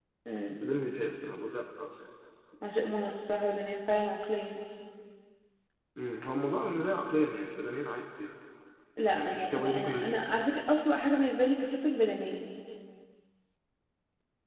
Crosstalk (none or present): present